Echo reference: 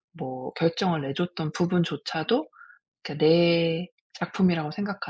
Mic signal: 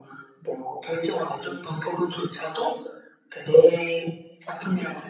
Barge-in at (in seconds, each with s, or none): none